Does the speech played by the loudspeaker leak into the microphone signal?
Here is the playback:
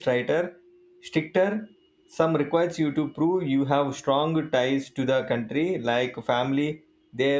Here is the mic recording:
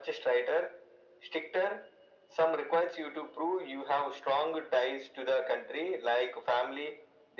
Yes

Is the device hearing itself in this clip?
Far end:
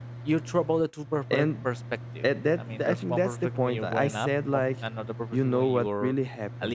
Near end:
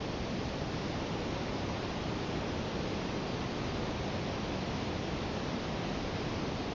No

